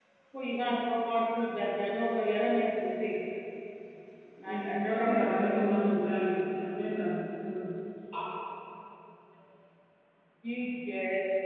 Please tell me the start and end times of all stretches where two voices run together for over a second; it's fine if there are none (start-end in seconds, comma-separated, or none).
4.4-5.6